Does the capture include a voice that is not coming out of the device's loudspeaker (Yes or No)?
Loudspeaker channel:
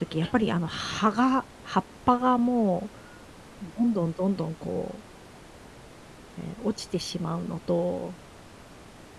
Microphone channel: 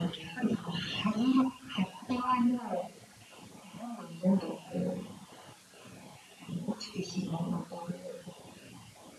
No